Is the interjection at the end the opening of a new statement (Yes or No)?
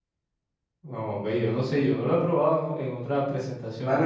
Yes